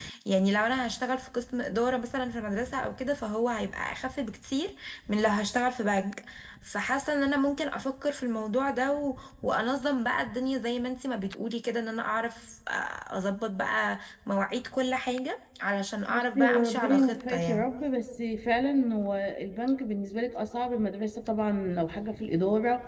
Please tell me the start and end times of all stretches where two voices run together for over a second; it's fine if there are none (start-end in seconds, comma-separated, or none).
16.1-17.7